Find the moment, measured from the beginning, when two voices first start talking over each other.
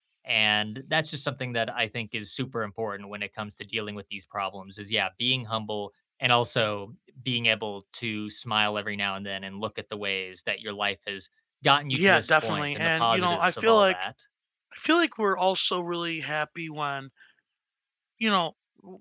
11.9 s

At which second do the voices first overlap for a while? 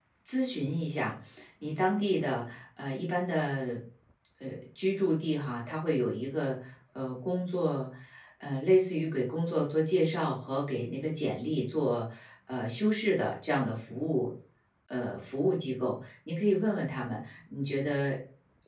none

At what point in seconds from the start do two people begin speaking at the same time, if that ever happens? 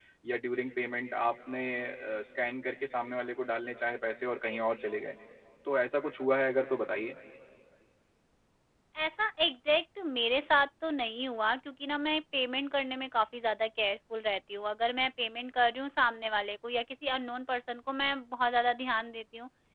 none

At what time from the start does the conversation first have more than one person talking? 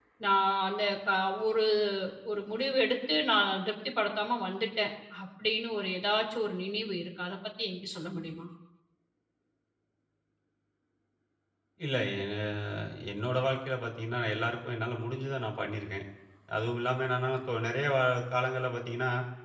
none

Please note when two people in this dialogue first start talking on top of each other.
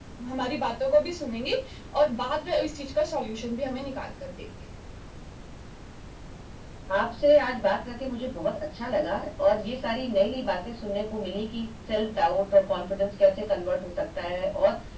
none

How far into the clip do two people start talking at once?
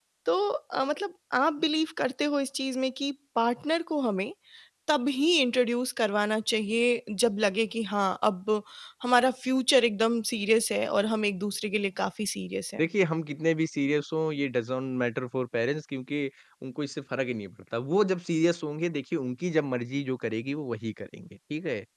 none

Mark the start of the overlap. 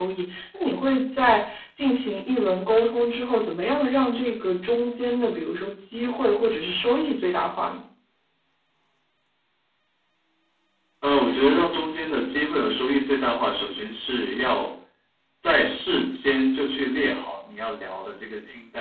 none

